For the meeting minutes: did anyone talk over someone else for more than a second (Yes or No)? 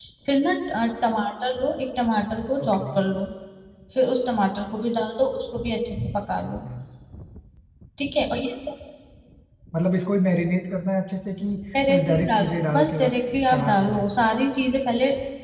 Yes